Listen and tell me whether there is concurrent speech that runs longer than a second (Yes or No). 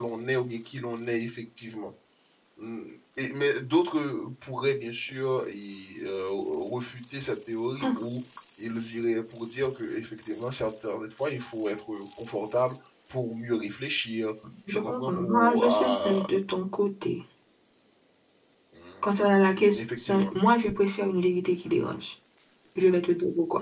Yes